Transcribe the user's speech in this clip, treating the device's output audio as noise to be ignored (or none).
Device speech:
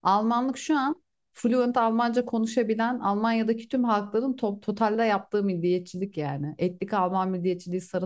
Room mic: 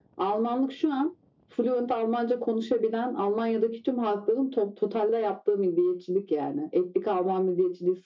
none